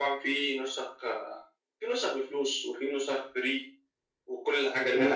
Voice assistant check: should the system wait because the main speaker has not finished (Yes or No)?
No